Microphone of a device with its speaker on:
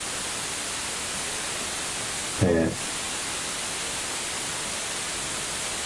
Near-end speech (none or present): present